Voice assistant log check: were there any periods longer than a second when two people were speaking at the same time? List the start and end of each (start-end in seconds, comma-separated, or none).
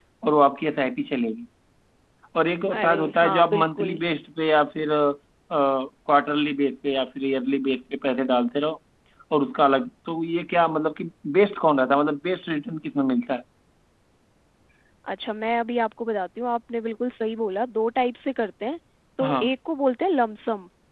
2.8-4.0